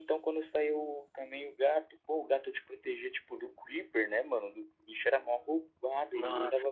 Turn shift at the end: Yes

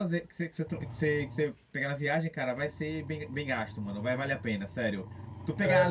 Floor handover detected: No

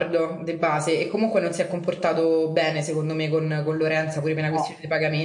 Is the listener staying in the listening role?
Yes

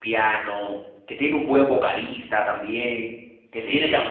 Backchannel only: Yes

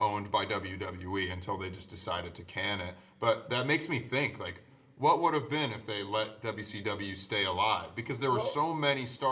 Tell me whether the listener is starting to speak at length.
No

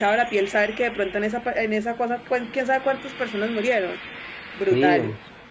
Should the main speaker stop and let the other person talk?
Yes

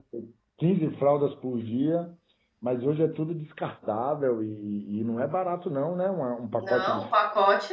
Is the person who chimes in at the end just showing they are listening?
No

